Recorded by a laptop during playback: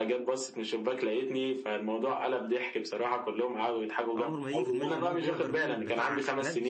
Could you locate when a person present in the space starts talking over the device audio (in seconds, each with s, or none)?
4.1 s